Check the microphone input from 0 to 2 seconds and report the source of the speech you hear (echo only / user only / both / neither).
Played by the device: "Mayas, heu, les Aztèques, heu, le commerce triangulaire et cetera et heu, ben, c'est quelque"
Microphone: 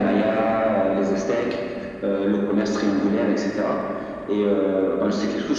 echo only